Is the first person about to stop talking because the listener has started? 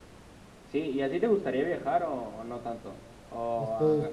Yes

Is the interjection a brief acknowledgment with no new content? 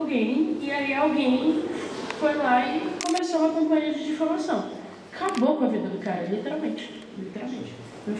Yes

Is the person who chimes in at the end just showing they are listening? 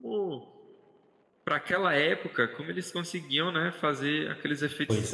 Yes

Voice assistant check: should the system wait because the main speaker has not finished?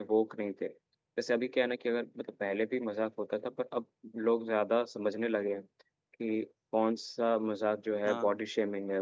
Yes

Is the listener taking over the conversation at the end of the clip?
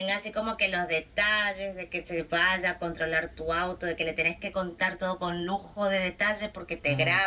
No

